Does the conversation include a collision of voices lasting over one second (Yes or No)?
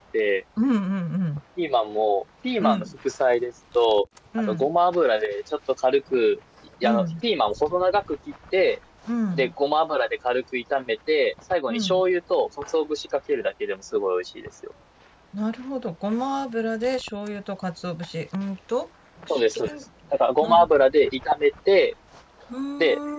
No